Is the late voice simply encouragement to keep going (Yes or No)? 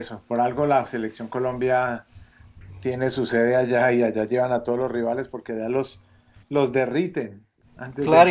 No